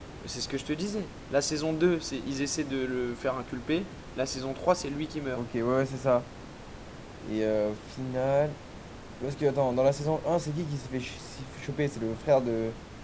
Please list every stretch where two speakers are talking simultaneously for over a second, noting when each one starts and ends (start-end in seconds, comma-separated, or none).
none